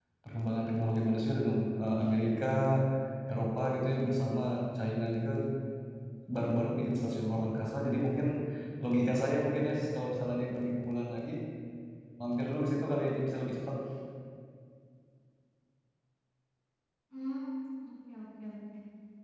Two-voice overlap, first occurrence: none

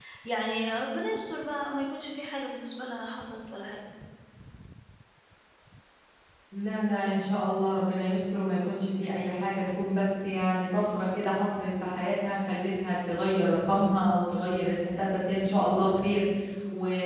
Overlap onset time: none

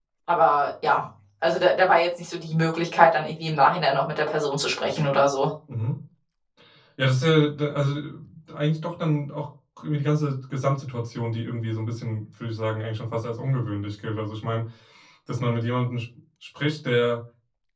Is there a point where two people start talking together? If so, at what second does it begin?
none

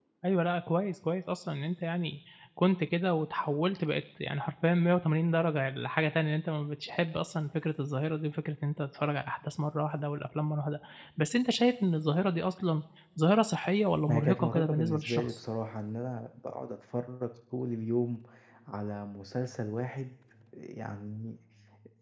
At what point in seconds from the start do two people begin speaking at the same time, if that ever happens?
14.1 s

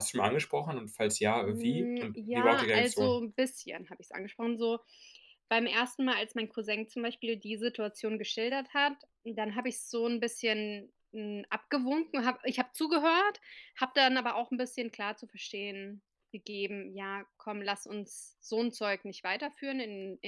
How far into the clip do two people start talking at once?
1.5 s

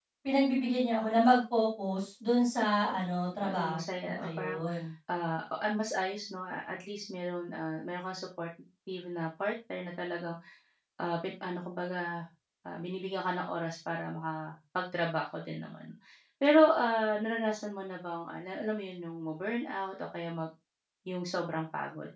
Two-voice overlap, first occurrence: 3.4 s

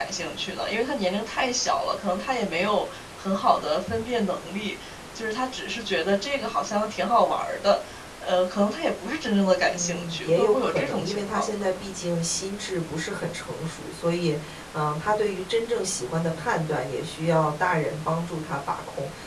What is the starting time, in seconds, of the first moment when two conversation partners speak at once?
9.6 s

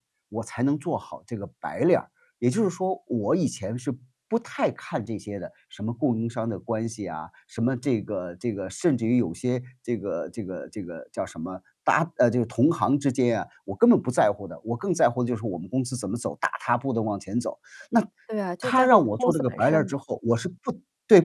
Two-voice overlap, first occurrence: 18.6 s

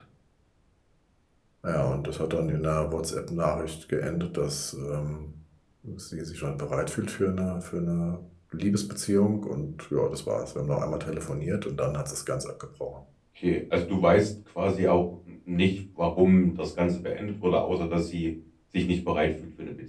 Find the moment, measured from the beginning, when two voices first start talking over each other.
none

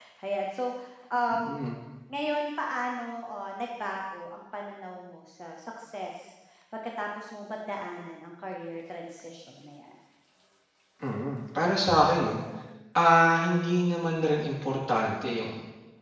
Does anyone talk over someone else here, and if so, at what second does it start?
none

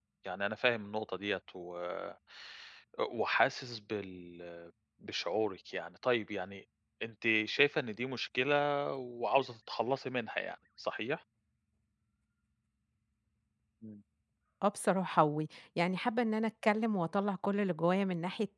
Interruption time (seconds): none

